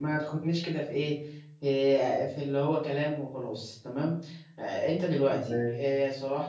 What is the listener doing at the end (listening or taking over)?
listening